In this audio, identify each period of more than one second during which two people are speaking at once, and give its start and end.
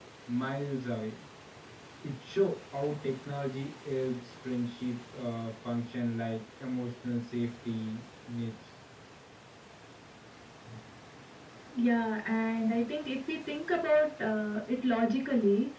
none

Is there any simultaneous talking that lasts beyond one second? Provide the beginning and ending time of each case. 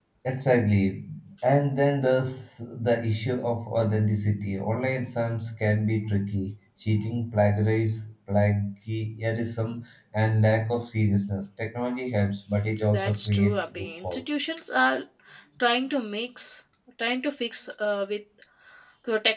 12.9-14.2

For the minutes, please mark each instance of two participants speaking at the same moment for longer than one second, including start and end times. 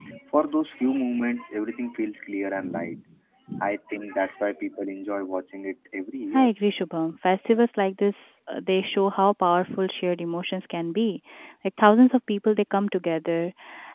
none

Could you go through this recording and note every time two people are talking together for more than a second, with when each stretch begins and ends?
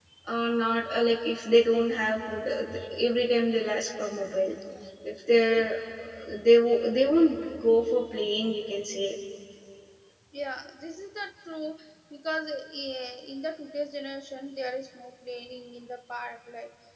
none

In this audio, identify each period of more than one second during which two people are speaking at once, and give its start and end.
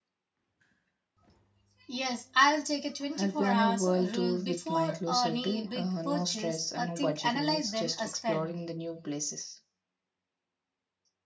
3.2-8.5

